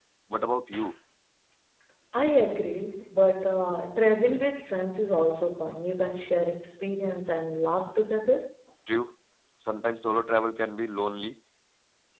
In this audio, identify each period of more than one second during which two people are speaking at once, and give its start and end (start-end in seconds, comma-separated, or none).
none